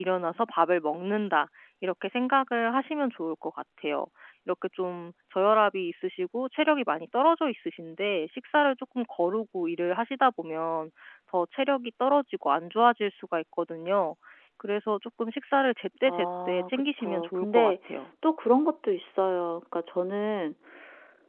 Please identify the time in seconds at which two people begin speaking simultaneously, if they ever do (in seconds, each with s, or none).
16.1 s